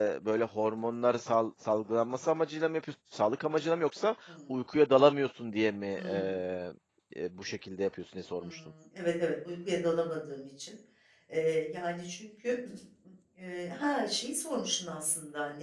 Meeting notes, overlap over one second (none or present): none